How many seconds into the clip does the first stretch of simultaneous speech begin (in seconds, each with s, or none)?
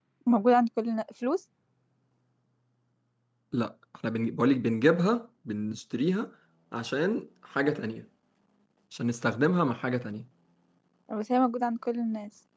none